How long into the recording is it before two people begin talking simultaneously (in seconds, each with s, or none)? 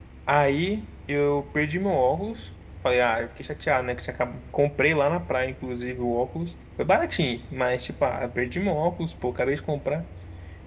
none